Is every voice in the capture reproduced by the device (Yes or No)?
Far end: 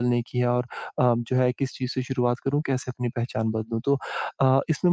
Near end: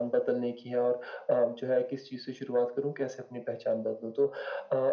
Yes